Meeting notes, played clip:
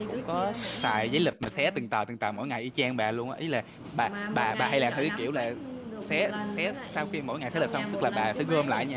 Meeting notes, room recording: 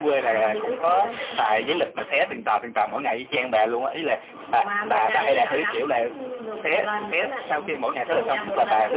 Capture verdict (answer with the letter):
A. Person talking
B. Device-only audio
B